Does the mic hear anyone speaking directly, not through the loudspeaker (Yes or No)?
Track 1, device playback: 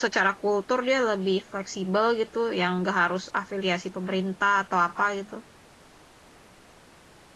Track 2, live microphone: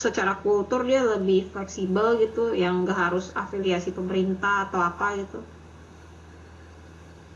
No